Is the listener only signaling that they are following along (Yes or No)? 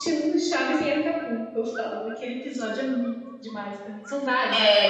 No